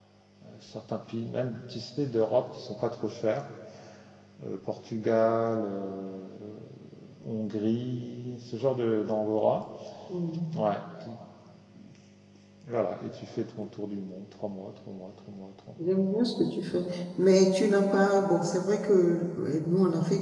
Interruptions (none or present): none